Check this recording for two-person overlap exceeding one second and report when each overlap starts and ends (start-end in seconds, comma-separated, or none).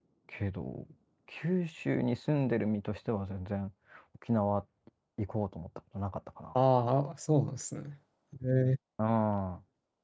none